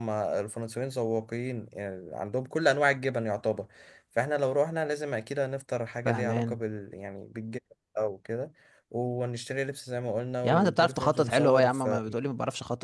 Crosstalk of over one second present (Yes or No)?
Yes